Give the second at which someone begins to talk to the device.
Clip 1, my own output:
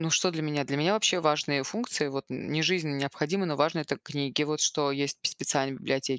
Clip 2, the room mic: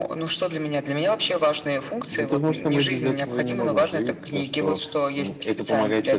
1.8 s

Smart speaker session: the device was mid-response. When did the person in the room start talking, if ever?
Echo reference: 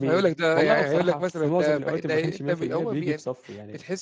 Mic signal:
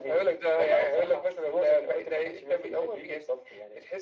none

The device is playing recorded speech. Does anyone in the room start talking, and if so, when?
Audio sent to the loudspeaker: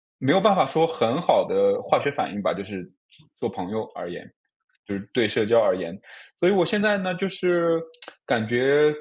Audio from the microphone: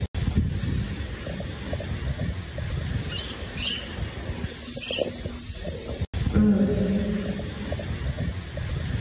6.3 s

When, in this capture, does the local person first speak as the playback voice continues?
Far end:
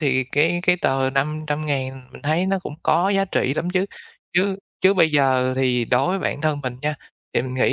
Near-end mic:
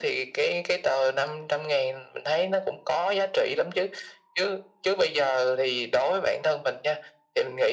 none

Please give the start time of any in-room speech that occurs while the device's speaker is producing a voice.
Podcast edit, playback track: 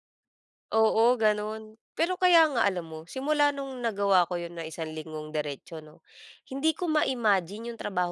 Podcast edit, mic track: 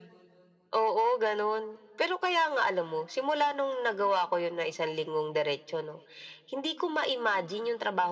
none

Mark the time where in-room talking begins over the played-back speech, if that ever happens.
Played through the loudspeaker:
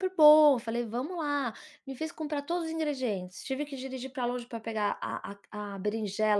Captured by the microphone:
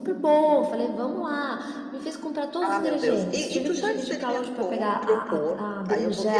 2.6 s

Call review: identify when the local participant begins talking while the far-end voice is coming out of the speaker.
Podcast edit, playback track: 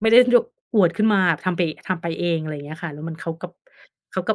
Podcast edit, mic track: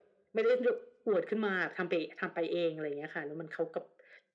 none

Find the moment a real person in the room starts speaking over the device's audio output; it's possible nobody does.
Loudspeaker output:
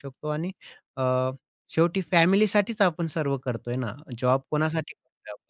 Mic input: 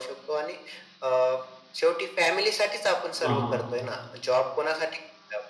3.2 s

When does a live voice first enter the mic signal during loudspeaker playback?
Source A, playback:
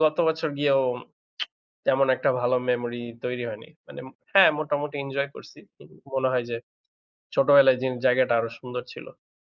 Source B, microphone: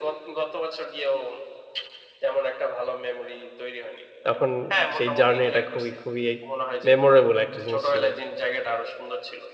4.3 s

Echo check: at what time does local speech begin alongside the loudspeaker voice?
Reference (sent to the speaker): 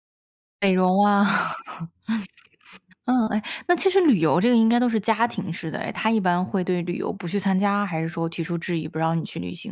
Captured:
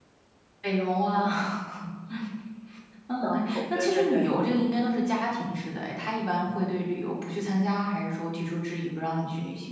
3.2 s

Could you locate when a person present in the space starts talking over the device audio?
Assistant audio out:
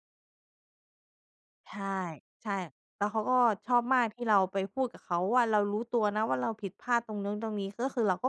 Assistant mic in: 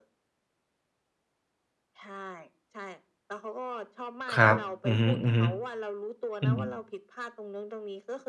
4.3 s

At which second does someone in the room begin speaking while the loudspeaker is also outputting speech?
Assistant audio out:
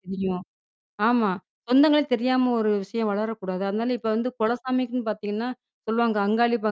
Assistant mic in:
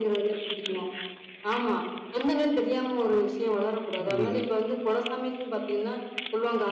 4.1 s

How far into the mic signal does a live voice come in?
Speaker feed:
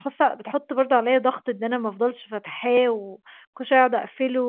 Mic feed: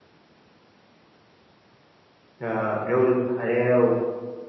2.4 s

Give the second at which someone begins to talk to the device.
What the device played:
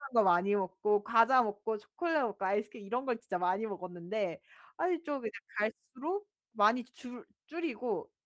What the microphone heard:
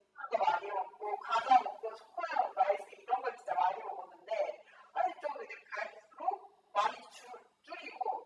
none

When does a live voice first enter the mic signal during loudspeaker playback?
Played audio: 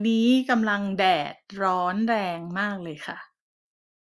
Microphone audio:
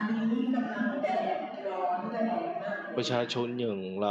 3.0 s

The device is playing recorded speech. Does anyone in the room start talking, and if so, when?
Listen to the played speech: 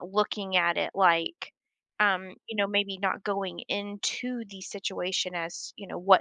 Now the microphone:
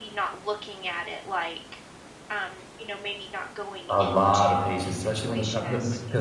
3.9 s

